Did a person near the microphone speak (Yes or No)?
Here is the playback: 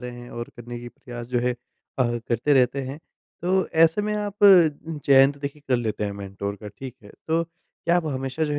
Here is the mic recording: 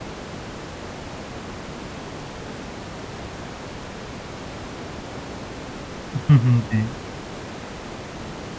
Yes